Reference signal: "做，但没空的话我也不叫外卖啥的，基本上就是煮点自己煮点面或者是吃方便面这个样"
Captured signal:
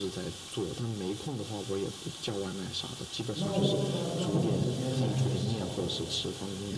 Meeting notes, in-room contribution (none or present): present